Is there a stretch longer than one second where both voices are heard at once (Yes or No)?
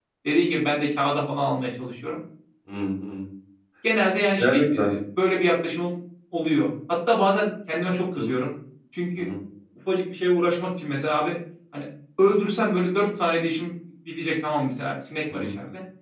No